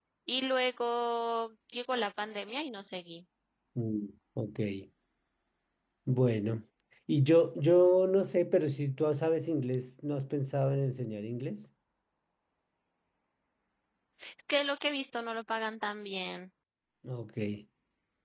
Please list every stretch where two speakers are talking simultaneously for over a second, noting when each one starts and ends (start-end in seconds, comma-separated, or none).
none